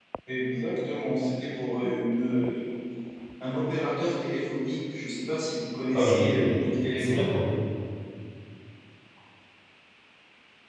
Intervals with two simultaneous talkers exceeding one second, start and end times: 5.9-7.3

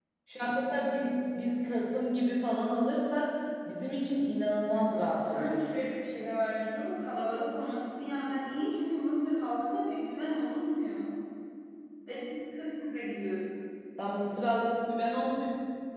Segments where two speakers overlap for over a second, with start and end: none

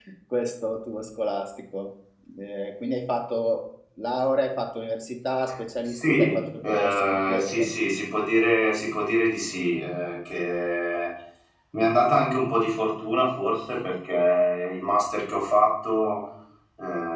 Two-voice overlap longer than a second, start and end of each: 5.8-7.7

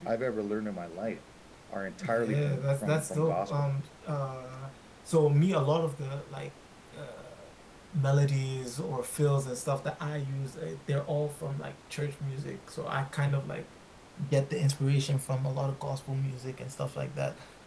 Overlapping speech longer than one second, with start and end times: 2.0-3.5

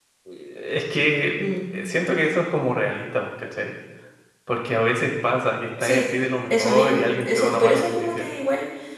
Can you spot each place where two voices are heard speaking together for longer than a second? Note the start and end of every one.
6.5-8.2

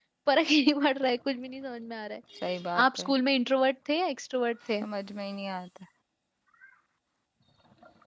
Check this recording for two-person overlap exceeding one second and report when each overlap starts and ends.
none

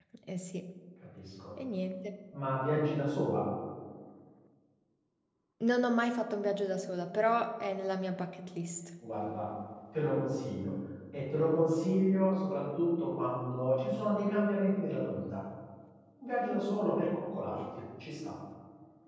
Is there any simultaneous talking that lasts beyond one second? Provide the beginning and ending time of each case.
none

